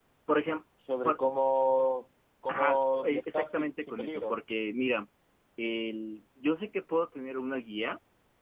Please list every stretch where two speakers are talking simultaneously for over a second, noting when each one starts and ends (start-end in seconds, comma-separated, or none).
2.5-4.4